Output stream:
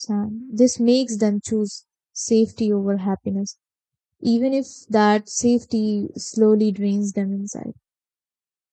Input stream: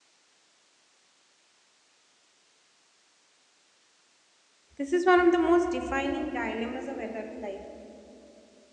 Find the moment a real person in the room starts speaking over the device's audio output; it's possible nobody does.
5 s

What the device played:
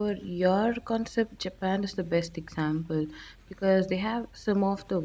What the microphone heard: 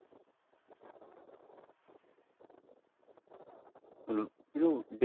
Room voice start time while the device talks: 4 s

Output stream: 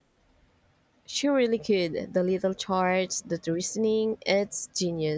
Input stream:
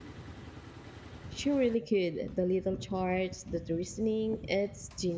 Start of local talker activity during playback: none

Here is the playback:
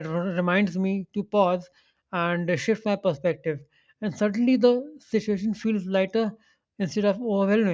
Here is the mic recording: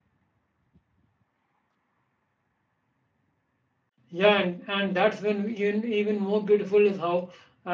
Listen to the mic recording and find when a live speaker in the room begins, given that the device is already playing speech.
4 s

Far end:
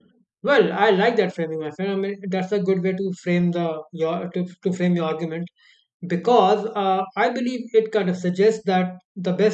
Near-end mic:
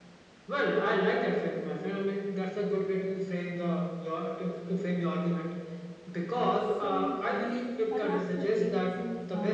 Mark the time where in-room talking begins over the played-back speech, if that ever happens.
7 s

